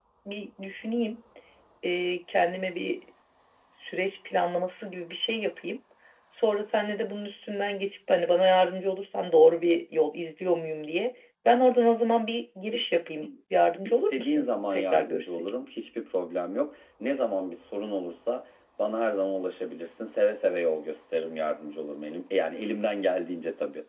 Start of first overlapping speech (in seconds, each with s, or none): 13.8 s